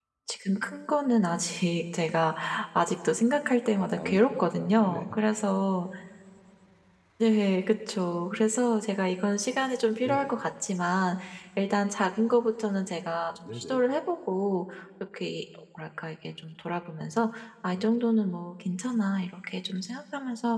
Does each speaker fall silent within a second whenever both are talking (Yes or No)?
No